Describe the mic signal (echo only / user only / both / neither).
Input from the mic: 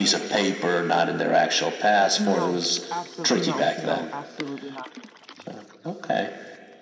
both